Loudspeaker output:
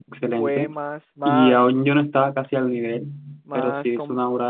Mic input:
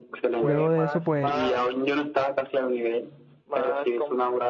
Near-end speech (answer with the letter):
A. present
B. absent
A